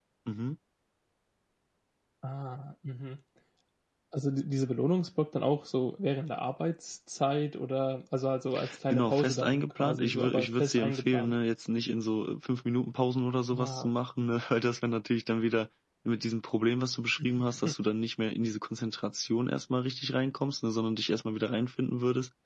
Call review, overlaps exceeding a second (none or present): present